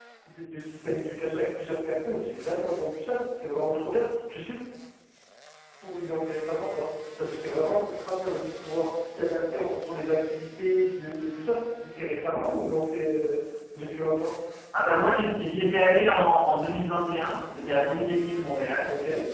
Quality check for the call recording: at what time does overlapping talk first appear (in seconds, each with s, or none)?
none